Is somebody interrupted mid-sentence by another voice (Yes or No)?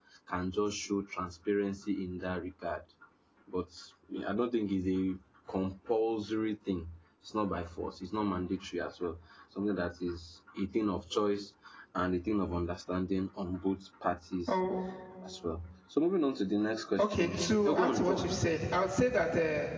Yes